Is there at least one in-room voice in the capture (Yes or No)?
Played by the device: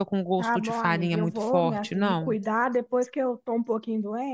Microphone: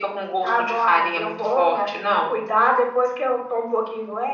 No